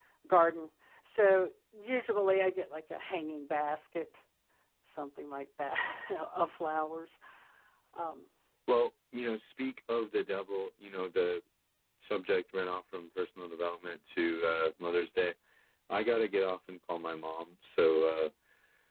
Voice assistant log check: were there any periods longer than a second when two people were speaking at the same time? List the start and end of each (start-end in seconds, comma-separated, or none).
none